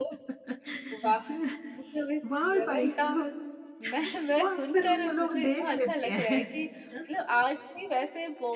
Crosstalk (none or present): present